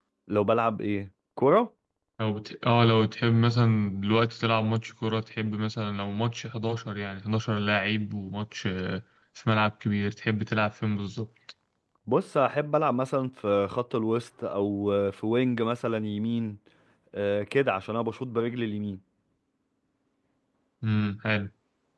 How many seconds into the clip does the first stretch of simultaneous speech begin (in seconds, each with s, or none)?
none